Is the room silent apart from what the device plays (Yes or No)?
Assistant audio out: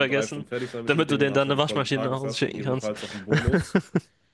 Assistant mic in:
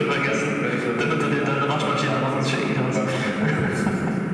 Yes